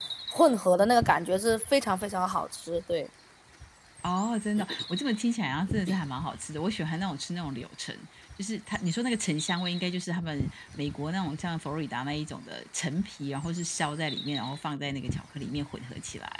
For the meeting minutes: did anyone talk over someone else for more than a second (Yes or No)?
No